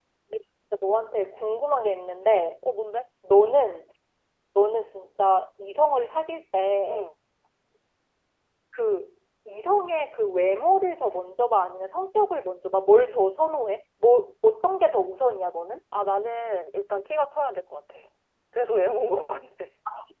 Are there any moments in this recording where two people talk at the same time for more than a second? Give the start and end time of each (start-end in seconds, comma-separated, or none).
none